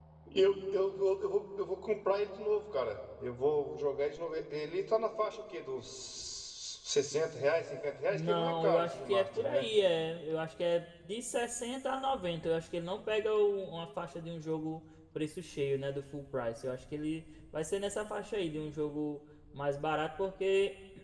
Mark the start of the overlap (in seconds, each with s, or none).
8.1 s